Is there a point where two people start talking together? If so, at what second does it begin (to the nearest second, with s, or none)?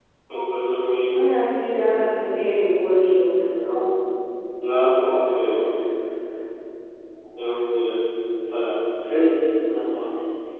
none